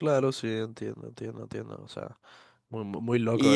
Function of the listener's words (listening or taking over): taking over